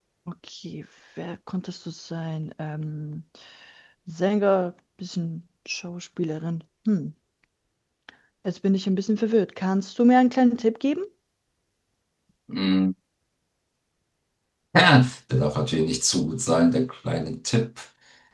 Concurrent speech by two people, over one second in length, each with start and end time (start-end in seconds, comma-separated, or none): none